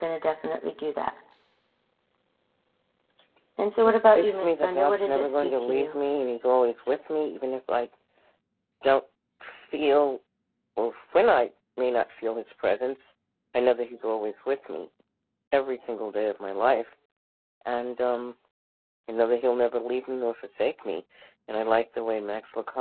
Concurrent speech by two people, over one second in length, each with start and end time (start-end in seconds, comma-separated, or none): 4.1-6.0